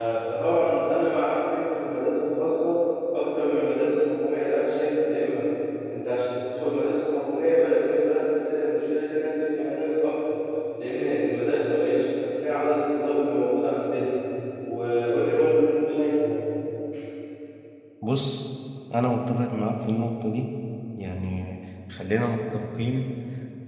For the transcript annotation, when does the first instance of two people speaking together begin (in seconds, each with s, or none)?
none